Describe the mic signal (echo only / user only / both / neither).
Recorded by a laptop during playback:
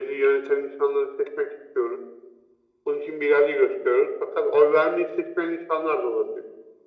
echo only